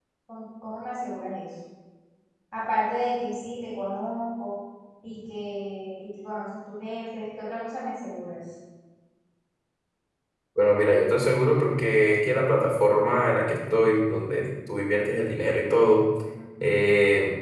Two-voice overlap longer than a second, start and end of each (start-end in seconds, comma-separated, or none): none